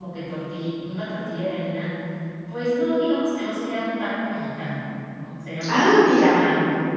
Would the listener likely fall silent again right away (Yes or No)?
Yes